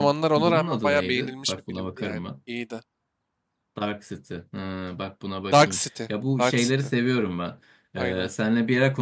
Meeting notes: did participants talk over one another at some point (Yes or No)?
Yes